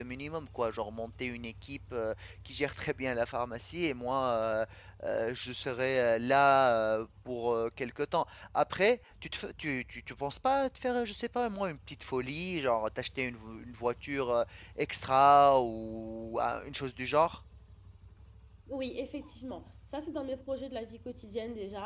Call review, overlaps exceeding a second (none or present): none